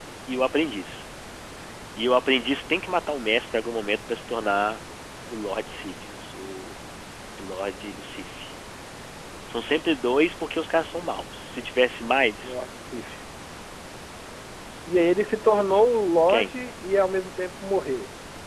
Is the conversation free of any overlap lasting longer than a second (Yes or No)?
Yes